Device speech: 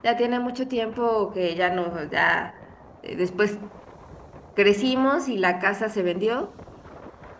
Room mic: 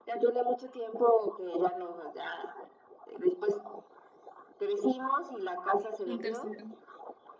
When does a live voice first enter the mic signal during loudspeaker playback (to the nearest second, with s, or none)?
6 s